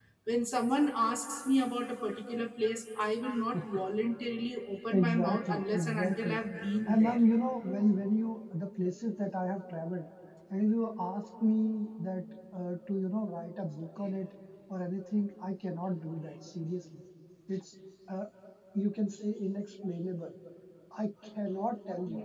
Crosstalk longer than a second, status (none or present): present